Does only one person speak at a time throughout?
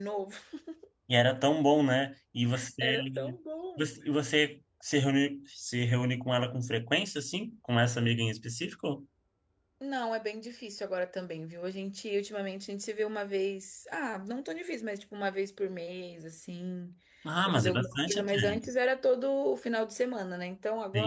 No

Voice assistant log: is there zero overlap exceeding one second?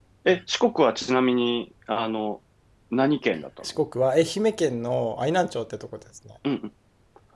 Yes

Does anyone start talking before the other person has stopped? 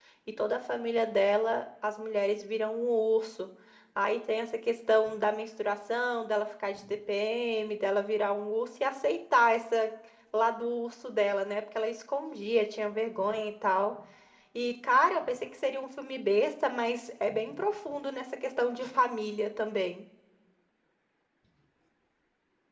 No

